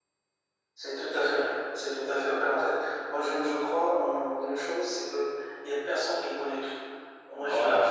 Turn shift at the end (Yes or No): No